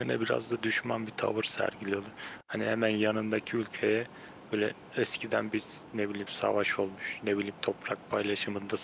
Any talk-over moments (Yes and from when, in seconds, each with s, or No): No